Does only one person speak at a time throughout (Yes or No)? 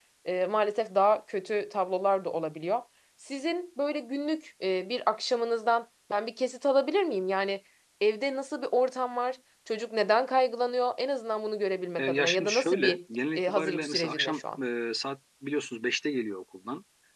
No